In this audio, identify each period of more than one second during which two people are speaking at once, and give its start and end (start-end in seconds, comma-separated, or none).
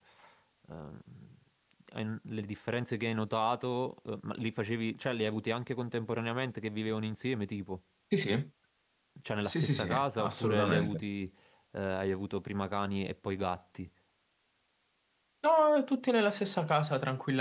9.4-11.0